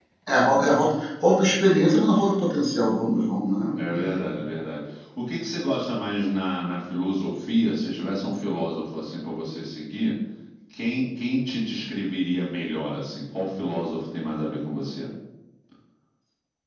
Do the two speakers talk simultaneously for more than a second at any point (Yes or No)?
No